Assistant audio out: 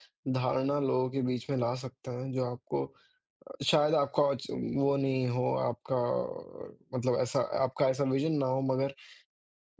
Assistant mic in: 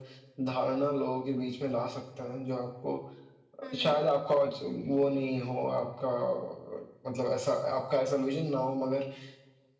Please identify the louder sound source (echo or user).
echo